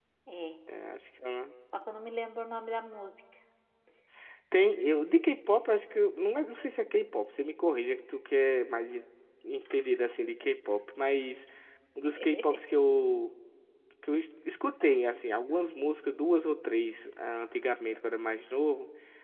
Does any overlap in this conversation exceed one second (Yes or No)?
No